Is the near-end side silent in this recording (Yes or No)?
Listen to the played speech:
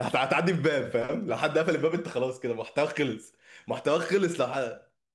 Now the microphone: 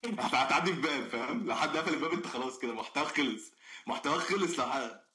Yes